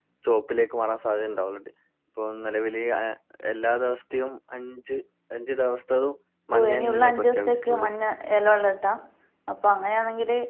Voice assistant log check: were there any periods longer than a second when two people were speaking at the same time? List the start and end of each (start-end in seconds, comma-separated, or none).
6.6-7.9